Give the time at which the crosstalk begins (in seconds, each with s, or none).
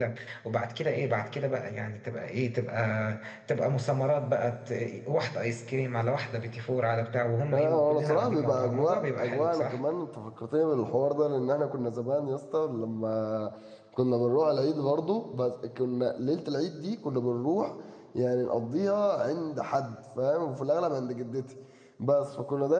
7.5 s